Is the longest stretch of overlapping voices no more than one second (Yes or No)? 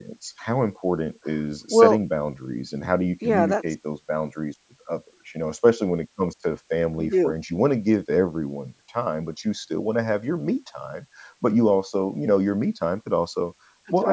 Yes